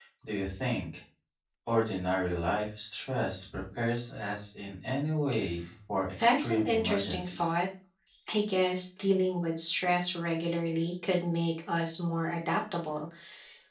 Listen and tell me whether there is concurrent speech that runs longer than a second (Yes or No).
Yes